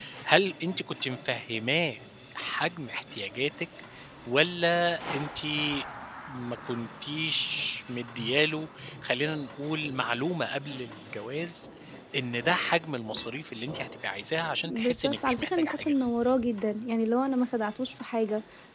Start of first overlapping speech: 15 s

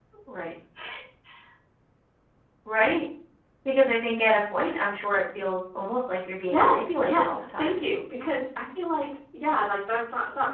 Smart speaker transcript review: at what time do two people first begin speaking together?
7 s

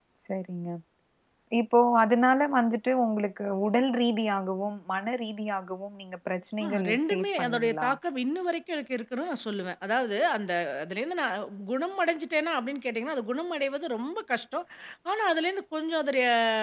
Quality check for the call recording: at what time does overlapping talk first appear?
7 s

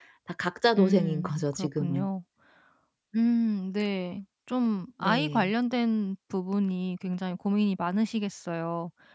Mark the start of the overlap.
1 s

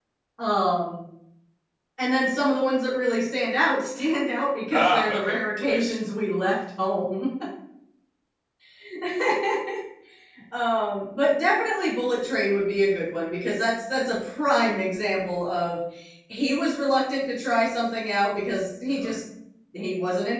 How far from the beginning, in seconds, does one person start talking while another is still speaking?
5 s

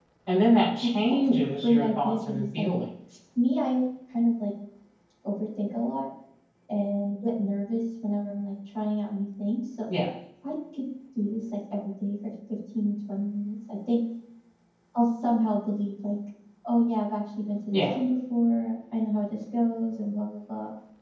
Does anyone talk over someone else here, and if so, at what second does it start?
1 s

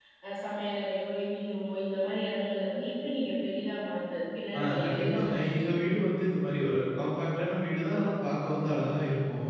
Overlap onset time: 5 s

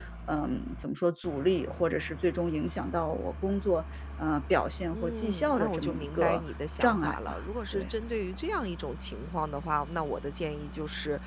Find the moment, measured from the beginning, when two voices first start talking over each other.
5 s

